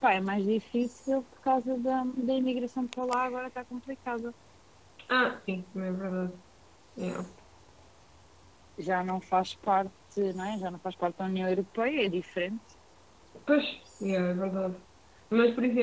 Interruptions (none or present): none